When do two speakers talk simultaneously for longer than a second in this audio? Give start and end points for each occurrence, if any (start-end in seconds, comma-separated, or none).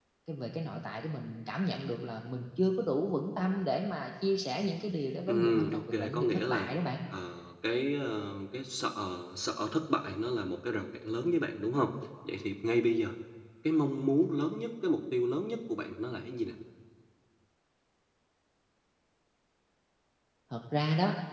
5.3-6.7